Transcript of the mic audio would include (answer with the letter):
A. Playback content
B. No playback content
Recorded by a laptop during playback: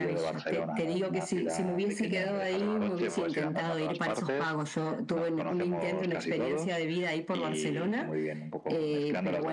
A